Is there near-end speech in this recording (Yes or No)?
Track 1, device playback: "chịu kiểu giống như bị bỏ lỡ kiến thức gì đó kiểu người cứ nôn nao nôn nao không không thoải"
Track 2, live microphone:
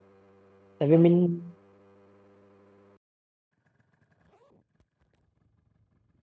Yes